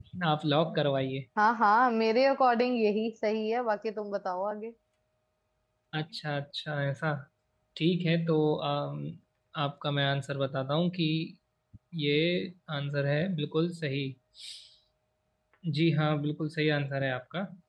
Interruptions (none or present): none